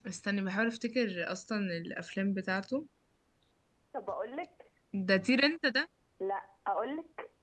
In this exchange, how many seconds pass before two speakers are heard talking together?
none

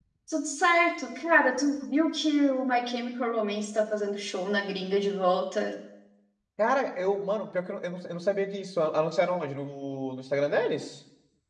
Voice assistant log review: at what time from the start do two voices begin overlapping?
none

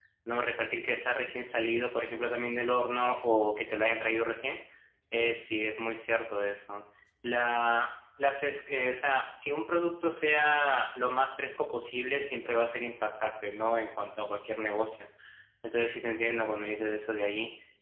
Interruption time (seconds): none

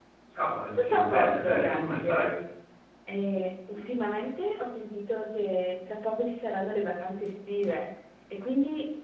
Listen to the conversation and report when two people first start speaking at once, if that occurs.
0.8 s

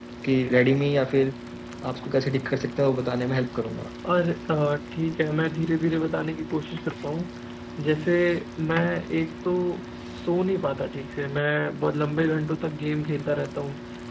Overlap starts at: none

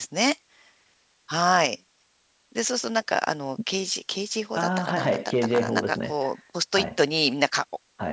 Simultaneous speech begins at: 4.6 s

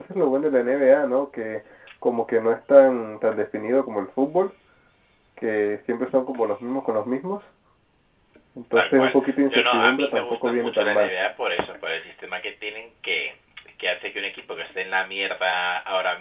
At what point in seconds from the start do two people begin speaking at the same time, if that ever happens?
8.7 s

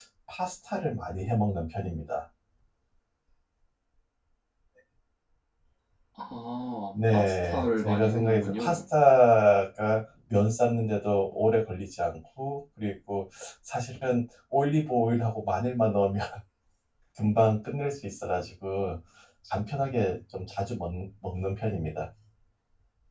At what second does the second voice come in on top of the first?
6.9 s

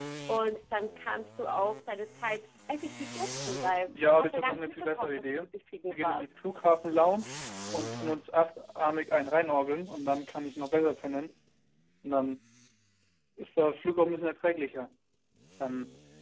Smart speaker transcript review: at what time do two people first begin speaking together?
3.9 s

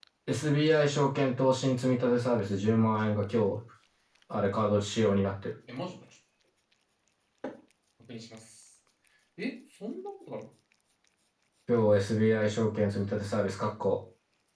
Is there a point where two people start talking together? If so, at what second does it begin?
none

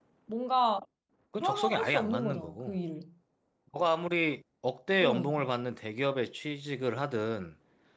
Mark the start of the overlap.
1.4 s

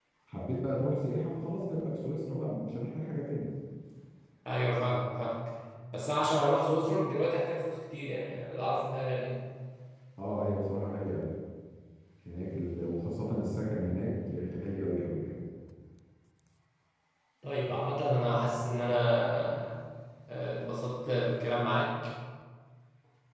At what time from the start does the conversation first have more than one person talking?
none

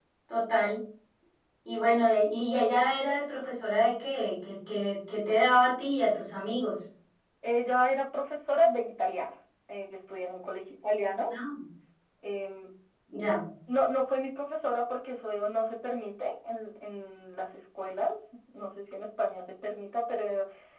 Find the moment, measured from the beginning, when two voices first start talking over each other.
none

